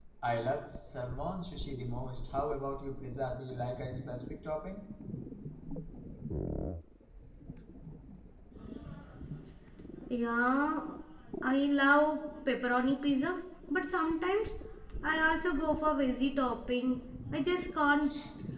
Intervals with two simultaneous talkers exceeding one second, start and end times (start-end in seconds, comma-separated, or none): none